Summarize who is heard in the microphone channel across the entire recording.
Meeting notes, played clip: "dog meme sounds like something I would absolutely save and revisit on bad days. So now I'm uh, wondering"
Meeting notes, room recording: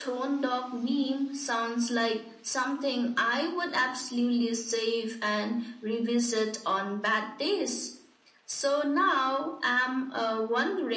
echo only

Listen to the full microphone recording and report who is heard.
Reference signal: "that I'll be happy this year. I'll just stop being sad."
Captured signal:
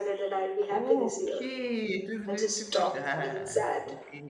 both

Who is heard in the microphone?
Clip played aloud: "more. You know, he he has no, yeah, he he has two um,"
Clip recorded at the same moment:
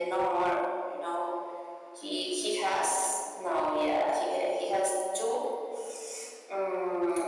echo only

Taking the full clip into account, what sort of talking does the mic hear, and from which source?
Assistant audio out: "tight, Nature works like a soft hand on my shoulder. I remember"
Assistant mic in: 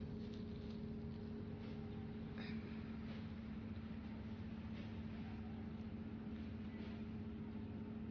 neither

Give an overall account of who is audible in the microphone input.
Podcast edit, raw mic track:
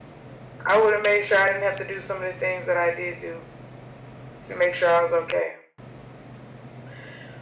echo only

